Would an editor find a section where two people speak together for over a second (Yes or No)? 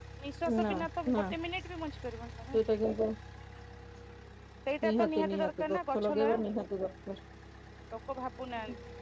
Yes